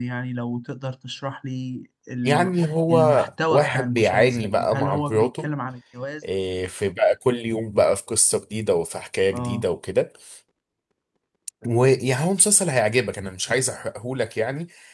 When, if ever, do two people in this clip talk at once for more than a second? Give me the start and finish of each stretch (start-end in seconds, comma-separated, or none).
3.5-5.5